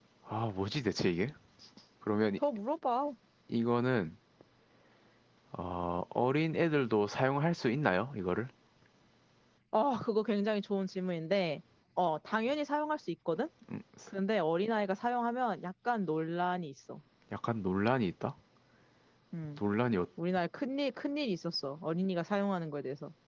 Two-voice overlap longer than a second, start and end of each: none

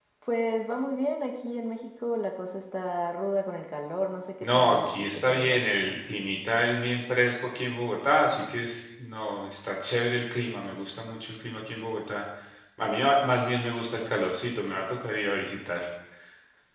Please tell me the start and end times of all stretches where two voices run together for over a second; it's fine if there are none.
4.4-5.6

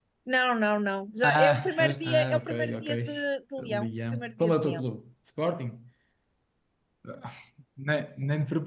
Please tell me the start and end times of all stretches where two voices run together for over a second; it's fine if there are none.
1.2-2.9, 3.6-4.8

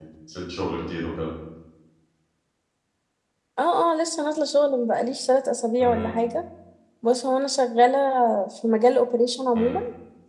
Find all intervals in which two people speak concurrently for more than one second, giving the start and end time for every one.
none

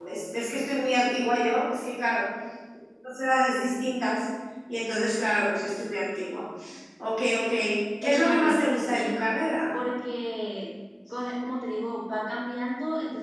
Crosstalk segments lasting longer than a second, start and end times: 8.0-9.2

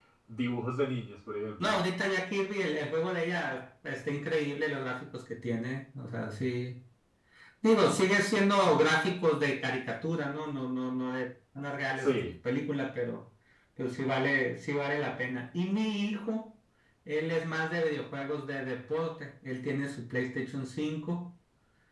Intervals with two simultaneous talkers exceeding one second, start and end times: none

